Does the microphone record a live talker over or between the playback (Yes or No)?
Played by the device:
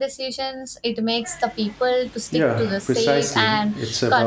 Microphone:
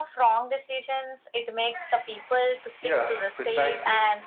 No